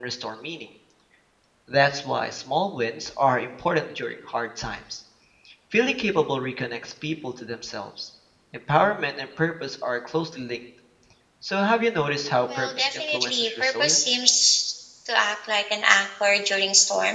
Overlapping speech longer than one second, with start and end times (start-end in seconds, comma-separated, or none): 12.6-14.2